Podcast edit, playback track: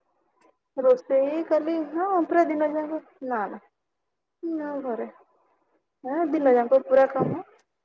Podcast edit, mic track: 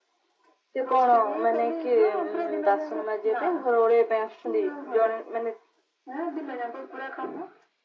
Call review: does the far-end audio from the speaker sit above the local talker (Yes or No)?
No